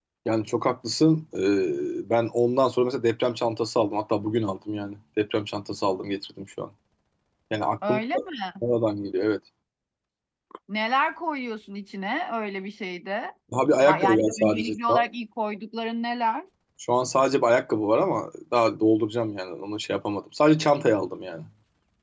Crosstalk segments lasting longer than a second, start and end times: 13.8-15.0

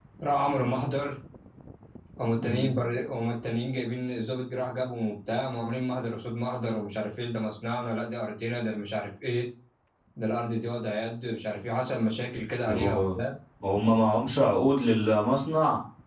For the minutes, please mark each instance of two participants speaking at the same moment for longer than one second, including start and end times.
none

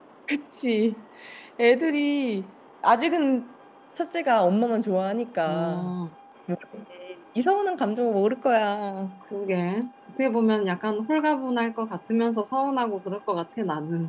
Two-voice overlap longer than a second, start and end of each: none

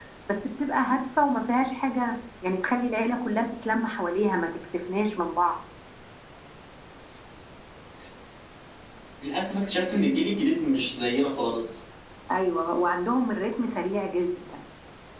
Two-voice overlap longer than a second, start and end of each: none

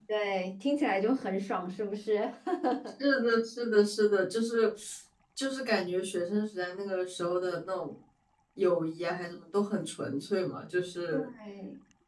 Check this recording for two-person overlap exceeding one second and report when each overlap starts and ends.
none

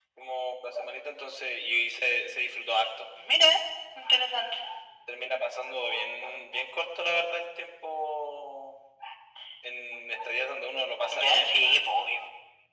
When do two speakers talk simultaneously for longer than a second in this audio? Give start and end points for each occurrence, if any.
none

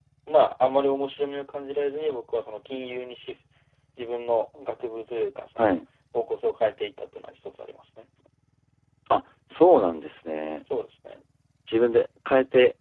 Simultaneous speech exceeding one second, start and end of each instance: none

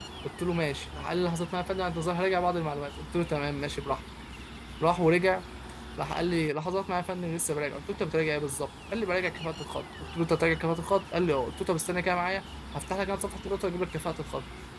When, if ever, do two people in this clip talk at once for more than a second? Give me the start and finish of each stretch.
none

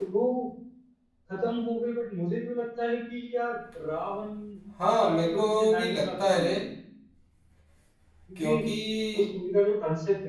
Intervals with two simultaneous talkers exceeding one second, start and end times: 5.0-6.6

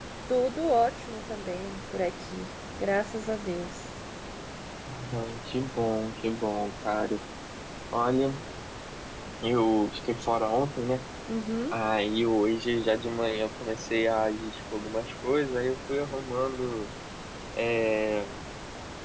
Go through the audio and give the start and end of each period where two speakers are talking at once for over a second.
none

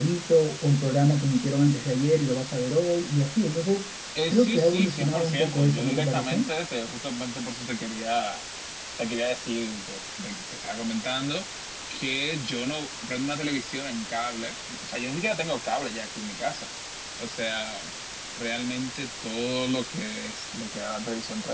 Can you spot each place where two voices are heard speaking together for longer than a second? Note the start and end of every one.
4.3-6.5

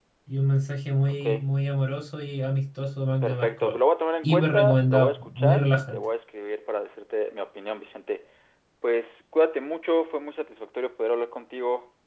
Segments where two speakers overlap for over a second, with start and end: 4.2-6.0

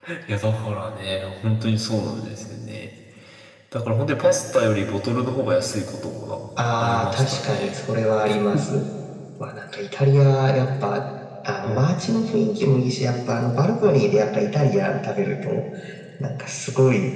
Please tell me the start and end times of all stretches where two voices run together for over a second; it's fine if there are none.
6.6-7.8

